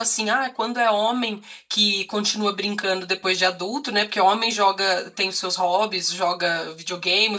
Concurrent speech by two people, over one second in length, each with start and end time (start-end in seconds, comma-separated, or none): none